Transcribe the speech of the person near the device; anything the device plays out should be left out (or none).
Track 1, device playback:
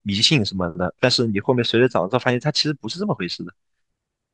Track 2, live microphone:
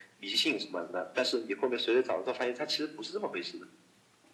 none